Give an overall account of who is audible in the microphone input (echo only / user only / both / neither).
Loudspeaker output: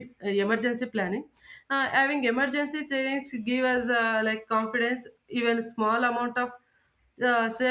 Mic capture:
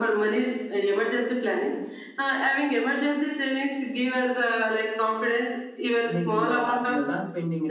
both